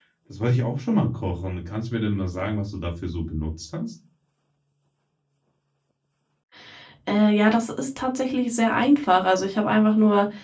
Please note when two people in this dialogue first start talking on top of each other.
none

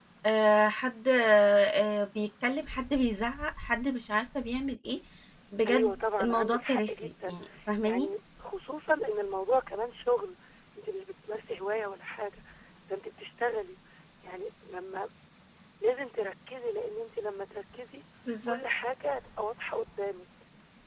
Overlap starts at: 5.7 s

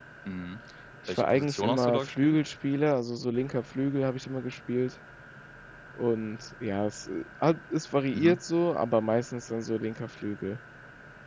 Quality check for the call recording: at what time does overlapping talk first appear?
1.1 s

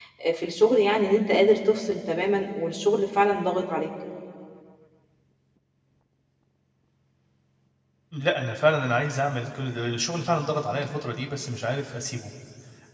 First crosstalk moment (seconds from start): none

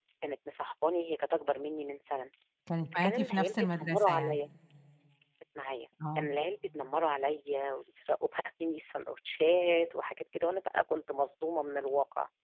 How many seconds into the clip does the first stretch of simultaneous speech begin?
2.9 s

